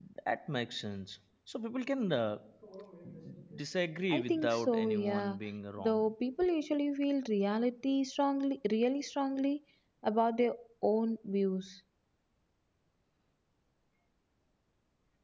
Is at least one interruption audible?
Yes, from 4.1 s

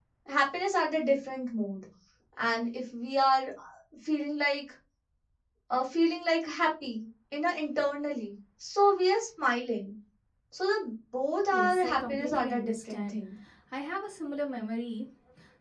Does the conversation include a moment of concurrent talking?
Yes, from 11.5 s

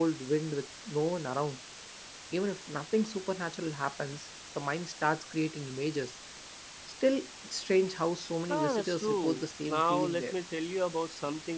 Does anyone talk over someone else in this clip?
Yes, from 8.5 s

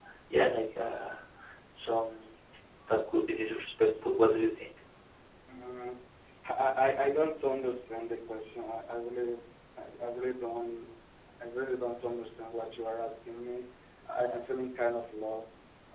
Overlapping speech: No

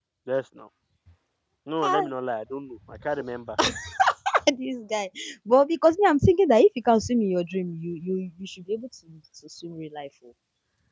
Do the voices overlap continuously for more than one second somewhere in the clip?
No

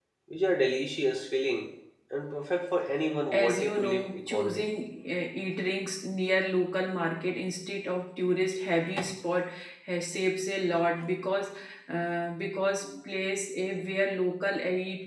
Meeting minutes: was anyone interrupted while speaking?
Yes, from 3.3 s

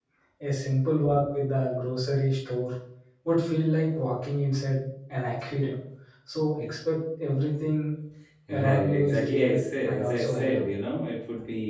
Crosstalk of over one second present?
Yes, from 8.5 s

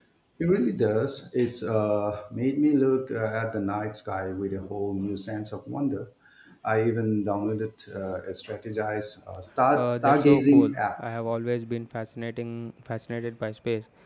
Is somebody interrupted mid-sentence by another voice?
Yes, from 9.8 s

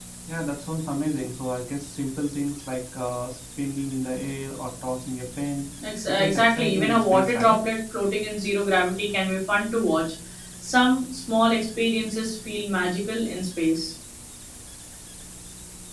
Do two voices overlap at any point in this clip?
Yes, from 6.1 s

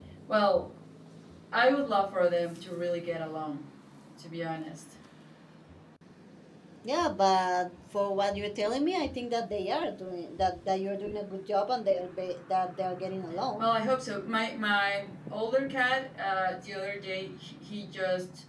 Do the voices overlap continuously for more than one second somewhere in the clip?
No

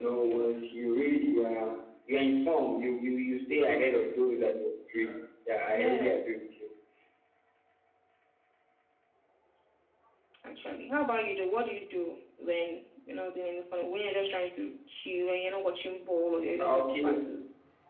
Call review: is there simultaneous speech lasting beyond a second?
No

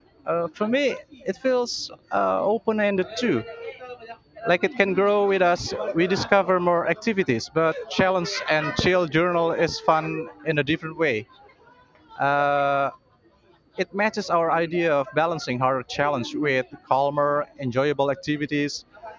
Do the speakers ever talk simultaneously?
No

